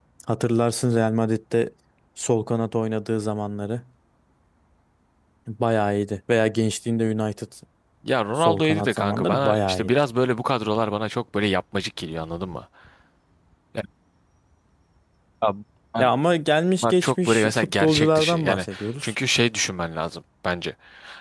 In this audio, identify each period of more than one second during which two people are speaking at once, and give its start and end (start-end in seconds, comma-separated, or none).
8.4-9.9, 16.8-19.1